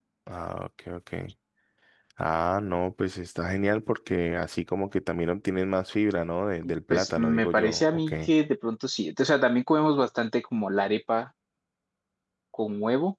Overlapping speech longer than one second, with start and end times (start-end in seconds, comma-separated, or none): 6.9-8.1